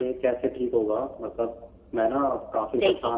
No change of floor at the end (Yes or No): Yes